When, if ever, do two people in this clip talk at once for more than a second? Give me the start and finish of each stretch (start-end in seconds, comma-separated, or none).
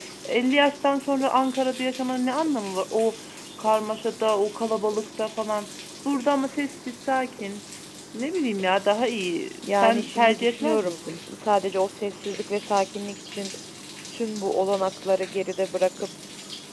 9.7-11.2